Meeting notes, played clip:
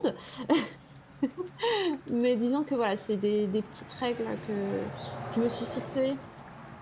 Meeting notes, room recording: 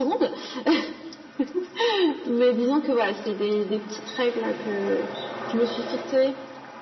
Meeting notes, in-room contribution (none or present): none